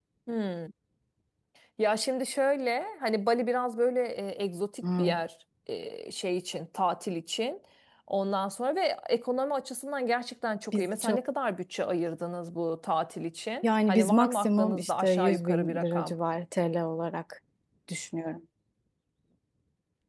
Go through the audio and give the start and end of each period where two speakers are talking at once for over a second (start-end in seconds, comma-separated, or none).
13.6-16.1